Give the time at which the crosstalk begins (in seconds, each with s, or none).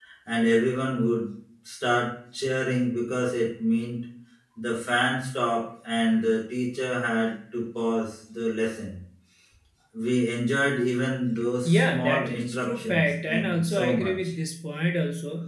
11.6 s